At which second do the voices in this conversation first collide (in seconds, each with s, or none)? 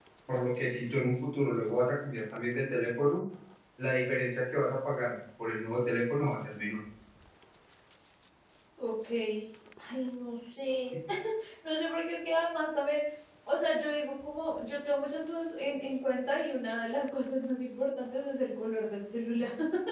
none